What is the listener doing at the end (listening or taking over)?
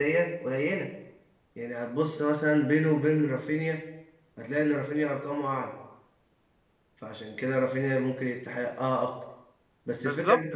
listening